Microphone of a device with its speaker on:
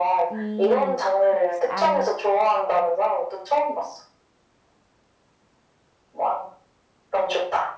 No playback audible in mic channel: No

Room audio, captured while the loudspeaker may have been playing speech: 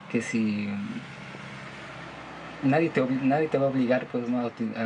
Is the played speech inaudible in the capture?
Yes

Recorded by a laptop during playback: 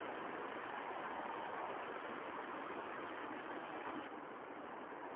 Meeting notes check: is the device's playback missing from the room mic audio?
Yes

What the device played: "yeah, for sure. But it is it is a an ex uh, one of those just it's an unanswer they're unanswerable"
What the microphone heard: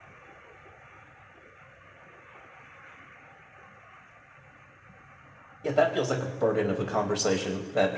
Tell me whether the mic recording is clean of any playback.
Yes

